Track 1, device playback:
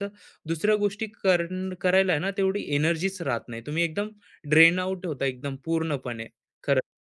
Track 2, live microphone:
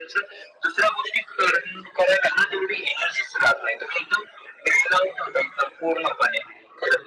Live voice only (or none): none